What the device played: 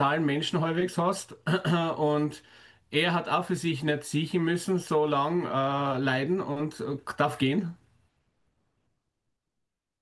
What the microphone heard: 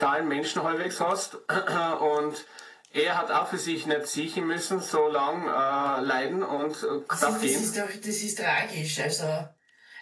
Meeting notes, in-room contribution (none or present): present